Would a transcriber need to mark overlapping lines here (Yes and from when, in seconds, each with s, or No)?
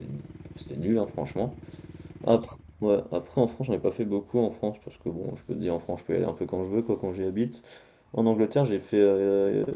No